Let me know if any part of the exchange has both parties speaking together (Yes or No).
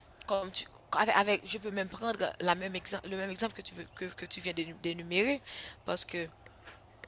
No